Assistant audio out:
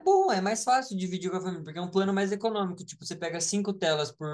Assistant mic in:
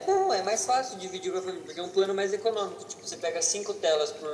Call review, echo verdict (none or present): present